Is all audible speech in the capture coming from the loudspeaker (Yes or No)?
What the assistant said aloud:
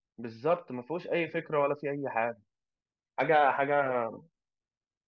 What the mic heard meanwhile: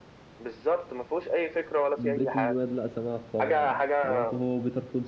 No